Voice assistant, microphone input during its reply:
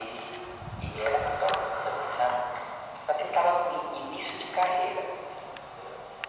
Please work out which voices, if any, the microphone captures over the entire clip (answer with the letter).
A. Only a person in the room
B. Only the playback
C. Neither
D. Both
B